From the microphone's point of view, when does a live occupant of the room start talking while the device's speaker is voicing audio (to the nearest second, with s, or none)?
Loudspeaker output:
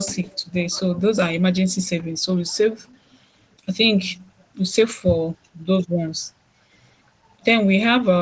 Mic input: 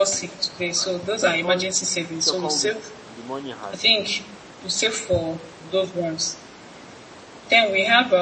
1 s